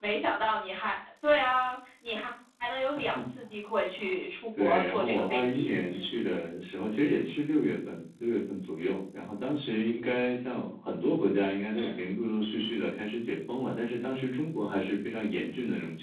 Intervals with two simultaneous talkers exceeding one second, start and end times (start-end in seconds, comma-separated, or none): 4.6-6.0